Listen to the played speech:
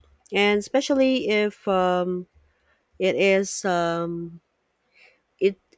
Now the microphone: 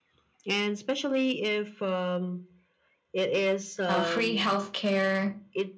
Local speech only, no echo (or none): uh, free healthcare.